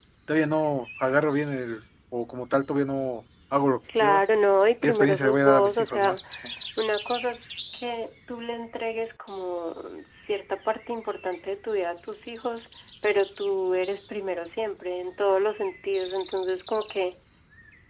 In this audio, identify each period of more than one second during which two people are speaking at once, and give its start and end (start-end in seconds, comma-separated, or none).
4.8-6.2